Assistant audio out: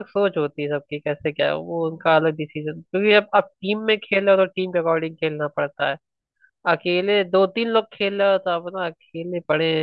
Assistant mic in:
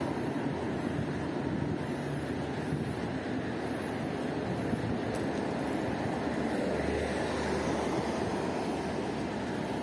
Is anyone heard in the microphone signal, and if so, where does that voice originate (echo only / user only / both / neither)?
neither